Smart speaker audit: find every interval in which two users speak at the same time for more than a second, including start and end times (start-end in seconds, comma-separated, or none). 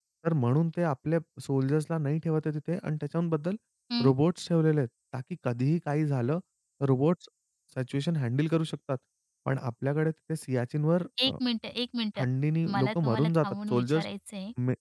12.7-14.0